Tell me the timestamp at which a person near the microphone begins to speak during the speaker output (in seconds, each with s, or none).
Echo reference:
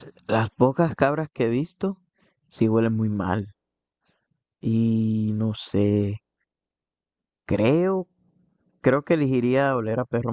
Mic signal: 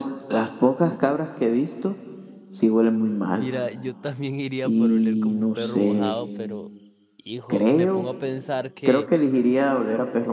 3.3 s